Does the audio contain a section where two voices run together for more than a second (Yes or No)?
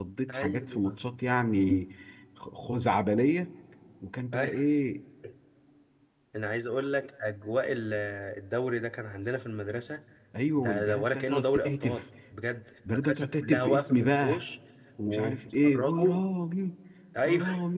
Yes